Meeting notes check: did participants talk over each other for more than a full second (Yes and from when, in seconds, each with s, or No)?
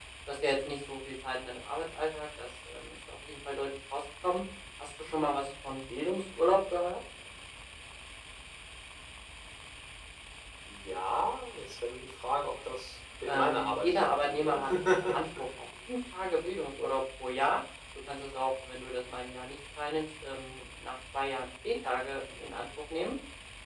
Yes, from 13.2 s